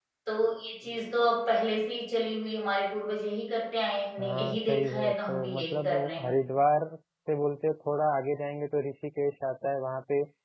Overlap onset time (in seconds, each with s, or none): 4.2 s